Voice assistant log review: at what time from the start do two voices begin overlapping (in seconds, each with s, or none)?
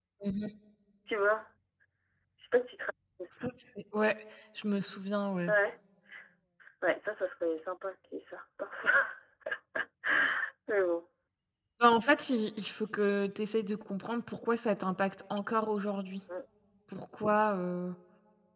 none